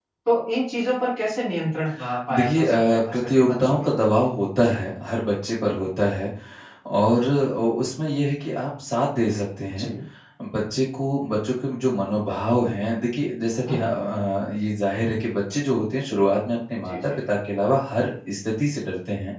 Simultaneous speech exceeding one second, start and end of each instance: 2.3-3.9

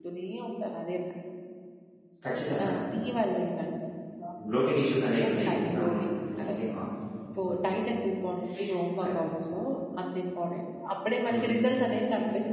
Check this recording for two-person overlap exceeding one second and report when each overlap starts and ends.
5.3-6.6

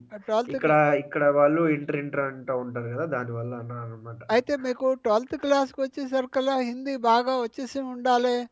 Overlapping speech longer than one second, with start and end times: none

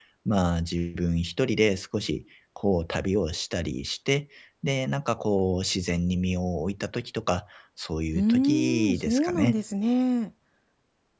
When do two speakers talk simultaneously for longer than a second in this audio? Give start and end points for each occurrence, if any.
8.2-9.6

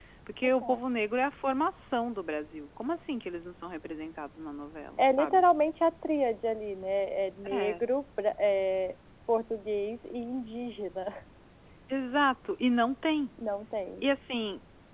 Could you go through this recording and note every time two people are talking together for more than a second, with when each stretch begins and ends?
none

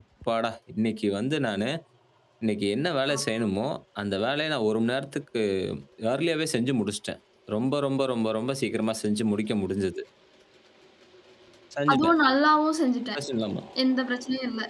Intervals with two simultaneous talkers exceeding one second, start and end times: none

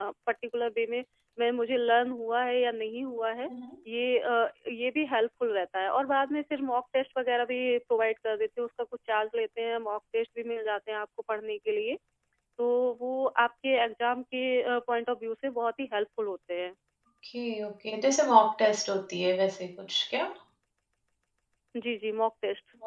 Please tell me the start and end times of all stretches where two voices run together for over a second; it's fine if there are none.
none

